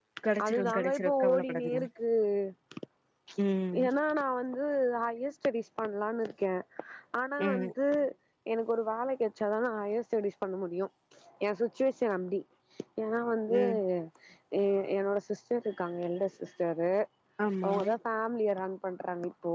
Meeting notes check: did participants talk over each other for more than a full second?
Yes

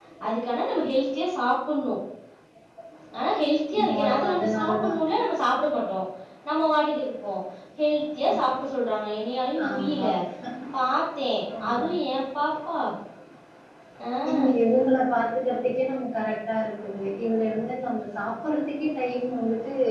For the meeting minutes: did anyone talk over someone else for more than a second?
Yes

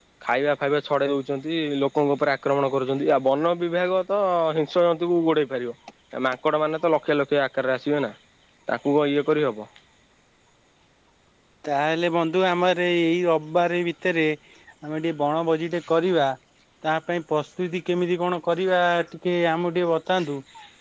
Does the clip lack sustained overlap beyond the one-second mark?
Yes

